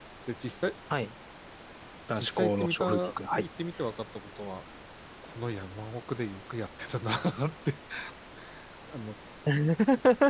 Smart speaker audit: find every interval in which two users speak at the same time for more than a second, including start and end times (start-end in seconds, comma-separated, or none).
2.1-3.5